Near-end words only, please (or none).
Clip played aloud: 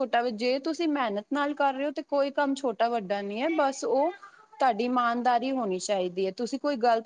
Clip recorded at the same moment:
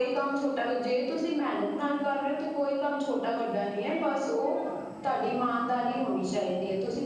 none